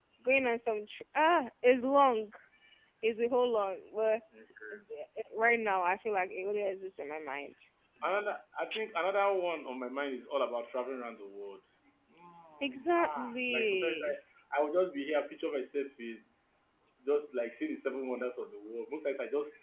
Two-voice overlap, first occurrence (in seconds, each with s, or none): 12.6 s